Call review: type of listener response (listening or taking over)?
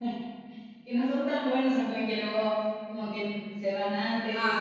taking over